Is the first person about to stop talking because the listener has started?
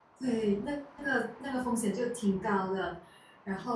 No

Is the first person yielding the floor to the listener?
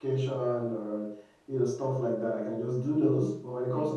No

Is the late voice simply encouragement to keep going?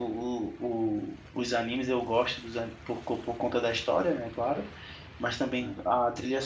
Yes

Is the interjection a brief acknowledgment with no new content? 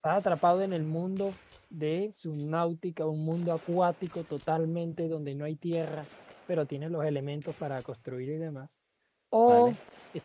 Yes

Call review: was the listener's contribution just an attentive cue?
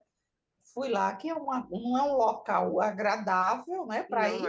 Yes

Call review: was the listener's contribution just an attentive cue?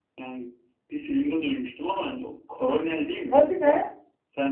Yes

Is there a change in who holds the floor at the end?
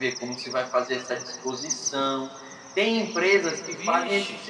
No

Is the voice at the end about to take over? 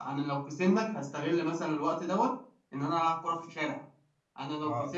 Yes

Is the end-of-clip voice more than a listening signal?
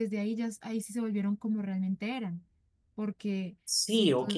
Yes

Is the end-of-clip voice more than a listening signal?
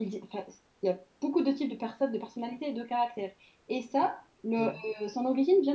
No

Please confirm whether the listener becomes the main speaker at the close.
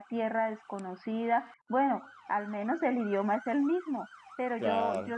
No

